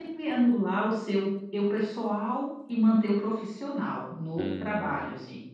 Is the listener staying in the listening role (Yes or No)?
No